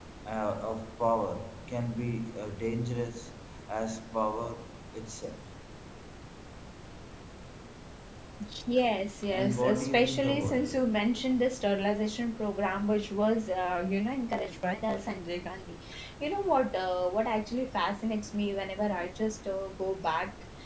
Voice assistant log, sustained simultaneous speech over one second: present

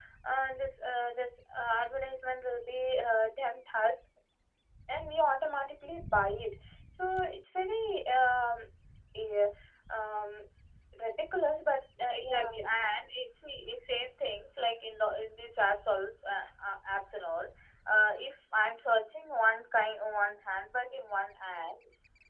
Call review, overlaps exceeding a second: none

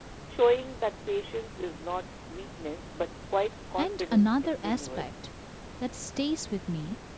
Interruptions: present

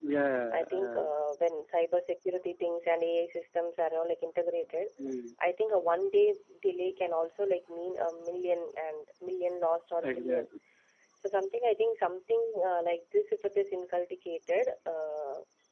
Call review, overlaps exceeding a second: none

